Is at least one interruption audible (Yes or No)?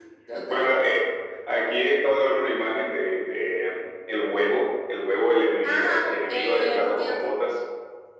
Yes